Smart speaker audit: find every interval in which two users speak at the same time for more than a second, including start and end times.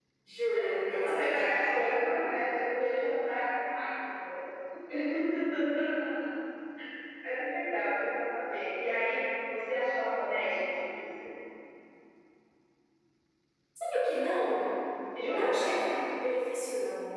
0.5-1.9

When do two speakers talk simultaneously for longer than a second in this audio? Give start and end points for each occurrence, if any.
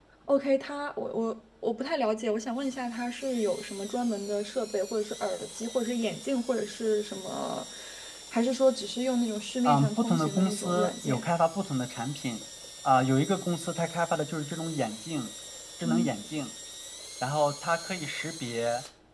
9.6-11.2

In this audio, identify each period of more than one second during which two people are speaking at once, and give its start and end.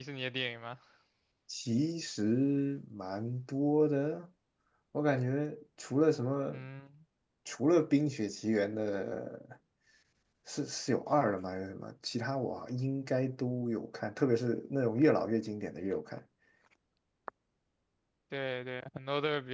none

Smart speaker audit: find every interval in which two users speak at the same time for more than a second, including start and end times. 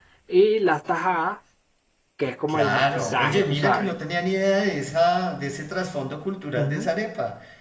2.5-3.9

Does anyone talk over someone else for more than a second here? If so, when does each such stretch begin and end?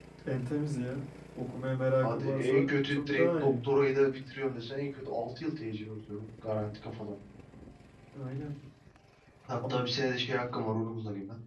2.0-3.5

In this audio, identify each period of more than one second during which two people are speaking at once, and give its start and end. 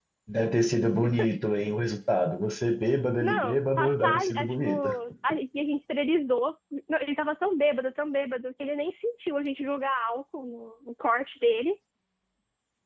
3.2-4.7

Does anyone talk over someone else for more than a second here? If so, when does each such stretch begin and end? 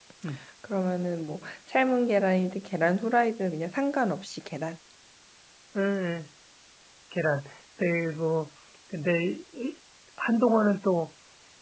none

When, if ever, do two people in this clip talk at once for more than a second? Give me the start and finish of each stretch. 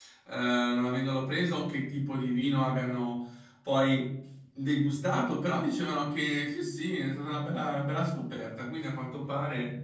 none

